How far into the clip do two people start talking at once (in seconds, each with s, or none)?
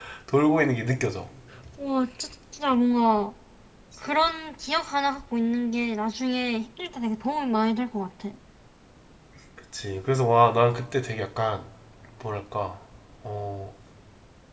none